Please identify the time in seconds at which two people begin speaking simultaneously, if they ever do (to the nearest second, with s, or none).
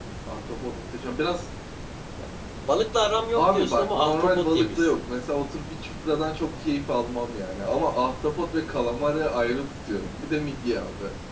3 s